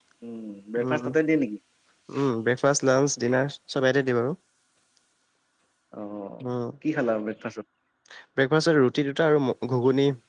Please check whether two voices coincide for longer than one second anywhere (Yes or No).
No